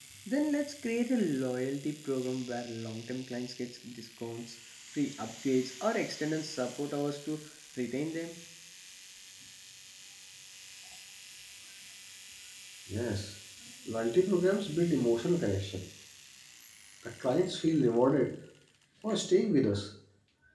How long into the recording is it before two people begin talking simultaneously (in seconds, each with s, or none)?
none